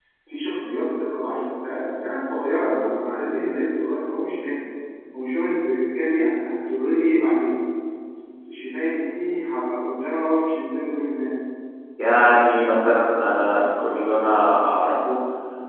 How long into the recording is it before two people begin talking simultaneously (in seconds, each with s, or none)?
none